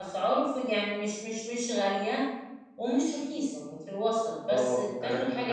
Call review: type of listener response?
taking over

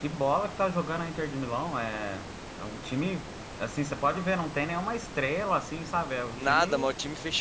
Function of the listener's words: taking over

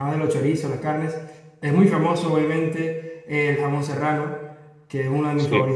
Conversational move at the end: listening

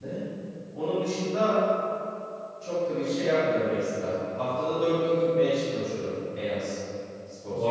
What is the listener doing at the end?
taking over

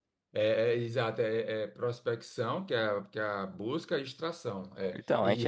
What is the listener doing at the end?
taking over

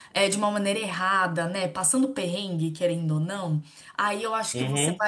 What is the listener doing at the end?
listening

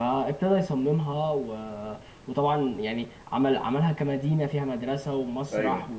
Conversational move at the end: listening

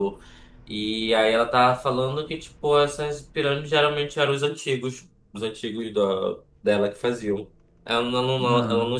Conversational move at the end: listening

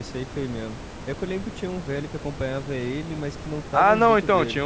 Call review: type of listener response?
taking over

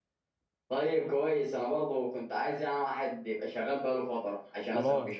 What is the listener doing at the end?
taking over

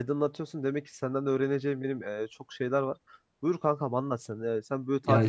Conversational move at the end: listening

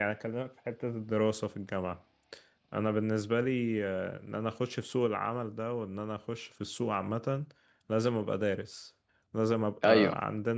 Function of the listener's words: listening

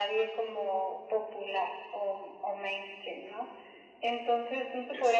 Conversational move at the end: listening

